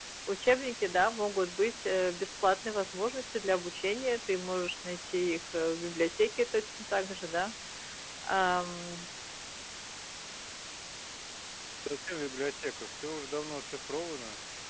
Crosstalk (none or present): none